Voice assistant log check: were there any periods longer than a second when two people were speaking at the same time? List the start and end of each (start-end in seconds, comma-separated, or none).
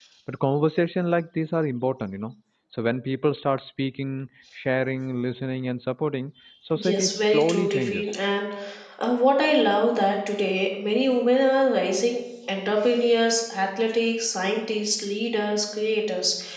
6.8-8.0